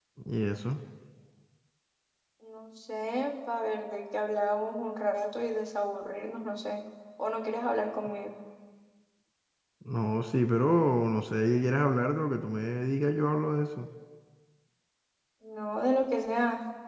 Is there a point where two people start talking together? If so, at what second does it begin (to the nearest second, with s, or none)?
none